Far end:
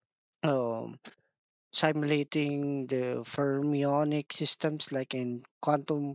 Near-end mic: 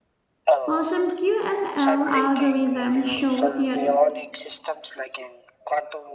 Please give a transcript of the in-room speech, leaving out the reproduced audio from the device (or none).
While some QML algorithms show theo-